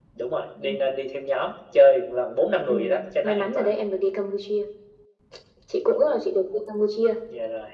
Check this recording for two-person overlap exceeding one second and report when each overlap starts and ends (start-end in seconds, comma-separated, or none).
none